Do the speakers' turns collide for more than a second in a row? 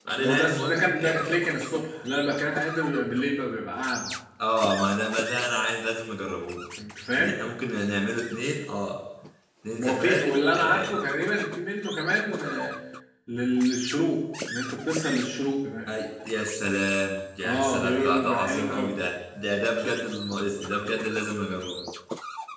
Yes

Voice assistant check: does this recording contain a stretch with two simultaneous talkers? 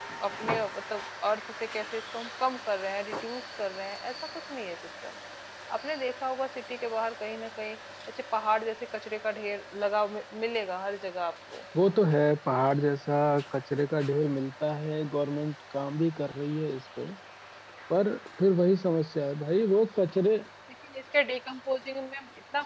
No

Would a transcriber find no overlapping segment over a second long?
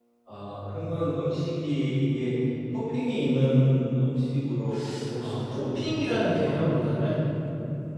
No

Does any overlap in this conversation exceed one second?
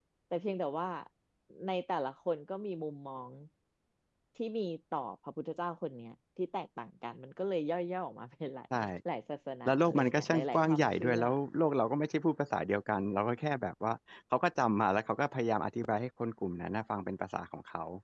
Yes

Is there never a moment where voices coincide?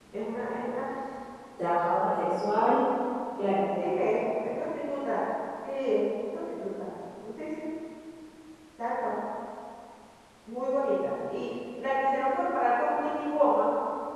Yes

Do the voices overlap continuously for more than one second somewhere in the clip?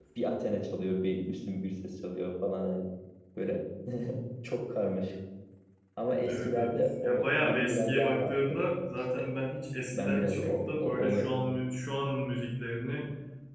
Yes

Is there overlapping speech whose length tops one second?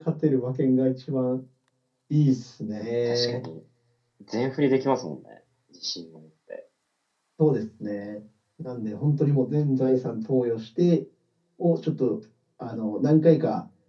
No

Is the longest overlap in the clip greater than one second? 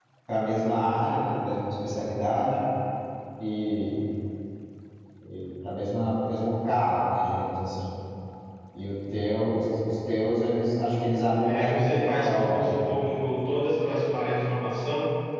Yes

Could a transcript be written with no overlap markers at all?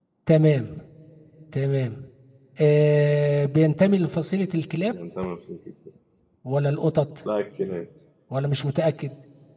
Yes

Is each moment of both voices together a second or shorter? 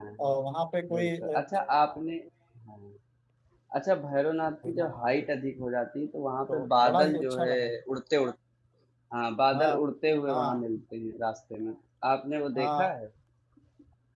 No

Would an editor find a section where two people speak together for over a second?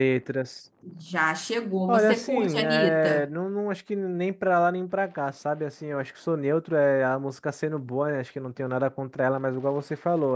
Yes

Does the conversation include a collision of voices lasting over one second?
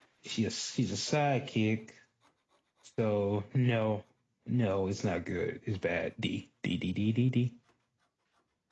No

